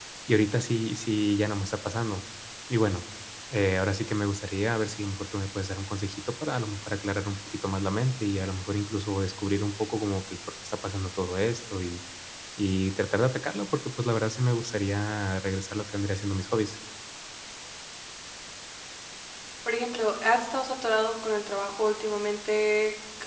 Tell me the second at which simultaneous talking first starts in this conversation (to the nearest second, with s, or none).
none